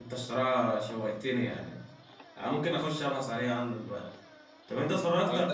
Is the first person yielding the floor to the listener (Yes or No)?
No